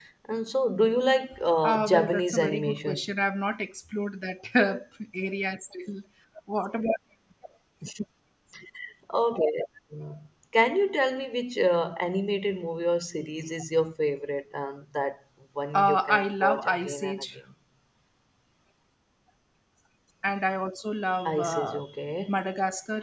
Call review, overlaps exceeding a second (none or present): present